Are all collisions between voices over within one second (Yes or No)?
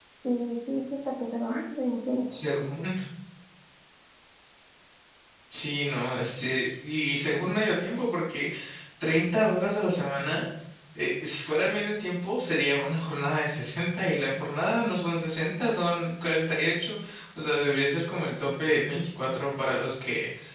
Yes